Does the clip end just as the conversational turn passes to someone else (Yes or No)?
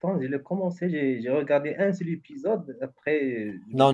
Yes